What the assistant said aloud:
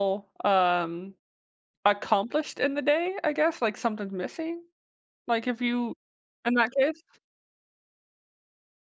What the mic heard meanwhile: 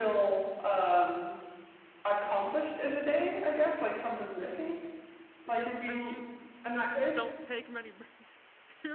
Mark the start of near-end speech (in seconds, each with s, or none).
5.4 s